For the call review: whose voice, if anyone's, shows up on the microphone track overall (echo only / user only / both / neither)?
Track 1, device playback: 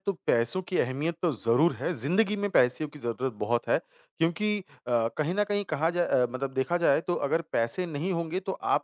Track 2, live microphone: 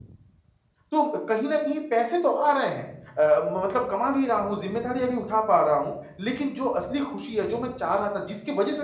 user only